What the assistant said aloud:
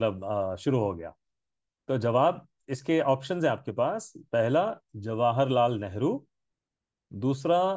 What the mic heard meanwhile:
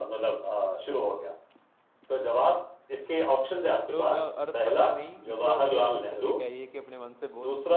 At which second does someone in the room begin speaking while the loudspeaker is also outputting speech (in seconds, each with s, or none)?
3.9 s